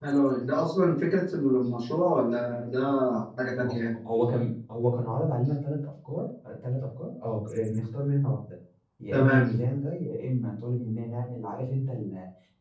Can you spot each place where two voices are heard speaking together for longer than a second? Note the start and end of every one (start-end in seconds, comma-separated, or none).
none